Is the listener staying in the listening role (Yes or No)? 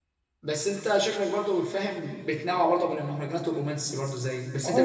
No